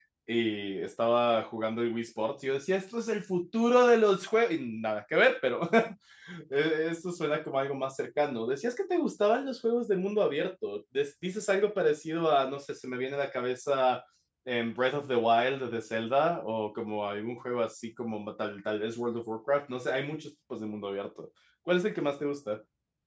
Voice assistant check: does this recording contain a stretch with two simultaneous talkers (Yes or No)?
No